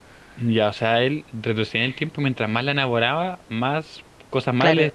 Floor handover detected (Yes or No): Yes